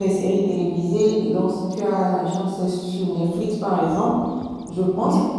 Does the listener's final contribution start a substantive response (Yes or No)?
No